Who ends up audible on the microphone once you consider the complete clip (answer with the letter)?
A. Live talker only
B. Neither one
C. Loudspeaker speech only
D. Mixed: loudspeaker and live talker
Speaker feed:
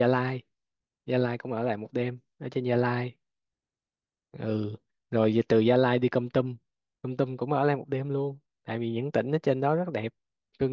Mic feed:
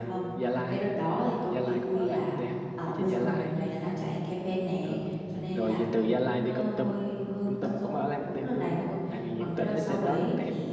D